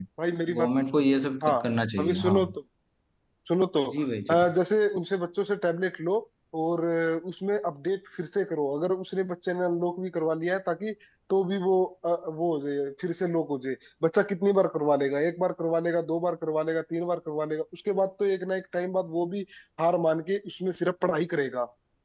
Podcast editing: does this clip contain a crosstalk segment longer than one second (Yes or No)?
No